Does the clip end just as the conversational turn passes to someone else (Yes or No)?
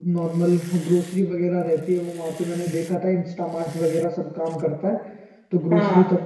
No